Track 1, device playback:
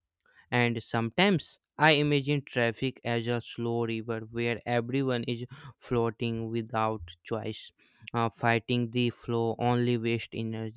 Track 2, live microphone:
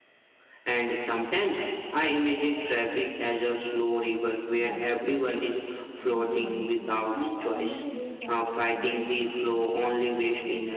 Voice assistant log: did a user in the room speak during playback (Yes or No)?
Yes